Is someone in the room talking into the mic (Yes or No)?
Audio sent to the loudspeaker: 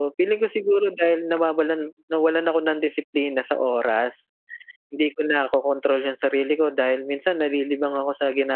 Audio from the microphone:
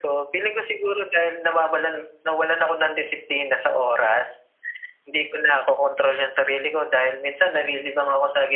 No